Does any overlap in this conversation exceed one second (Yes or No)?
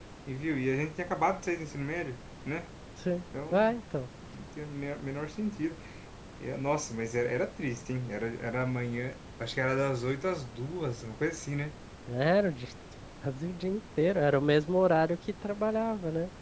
No